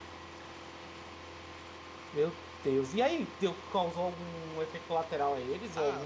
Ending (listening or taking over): taking over